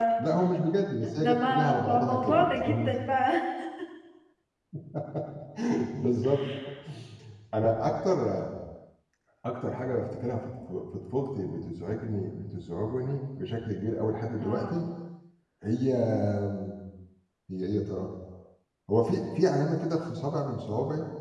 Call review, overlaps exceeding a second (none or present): present